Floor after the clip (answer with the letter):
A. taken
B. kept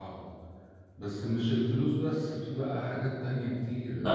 A